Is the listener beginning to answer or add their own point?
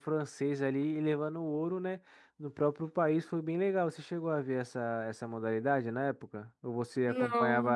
No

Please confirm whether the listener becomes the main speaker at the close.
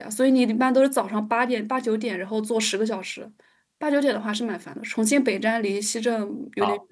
Yes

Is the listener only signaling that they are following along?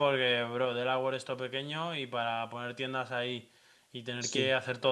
Yes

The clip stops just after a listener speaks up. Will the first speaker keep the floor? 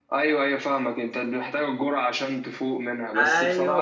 No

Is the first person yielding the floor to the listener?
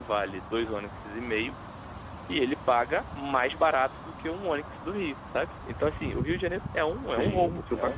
Yes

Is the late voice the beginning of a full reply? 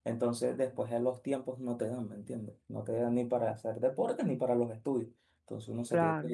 No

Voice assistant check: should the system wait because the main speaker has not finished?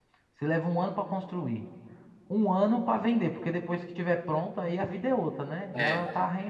Yes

